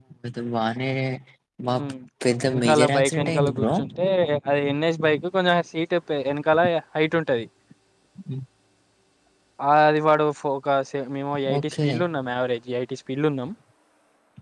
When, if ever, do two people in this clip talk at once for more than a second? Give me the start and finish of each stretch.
2.4-3.7

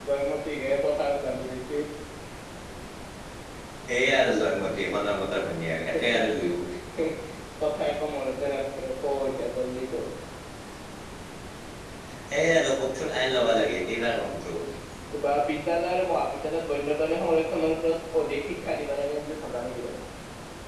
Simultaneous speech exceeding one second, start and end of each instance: none

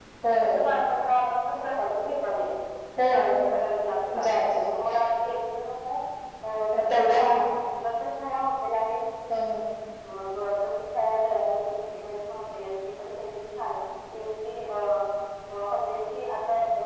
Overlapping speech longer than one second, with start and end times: none

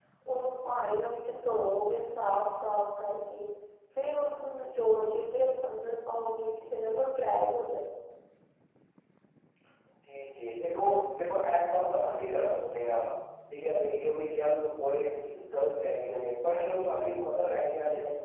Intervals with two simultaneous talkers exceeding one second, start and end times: none

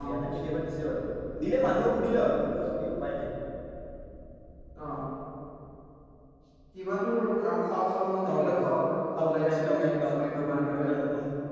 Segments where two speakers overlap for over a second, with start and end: 9.2-10.9

